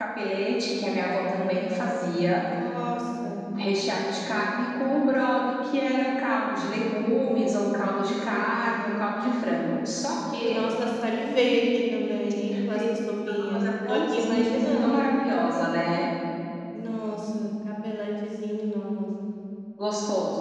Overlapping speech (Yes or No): Yes